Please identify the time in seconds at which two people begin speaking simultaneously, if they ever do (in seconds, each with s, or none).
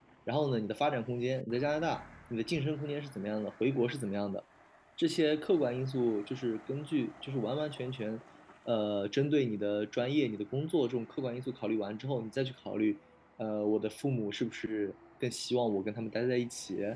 none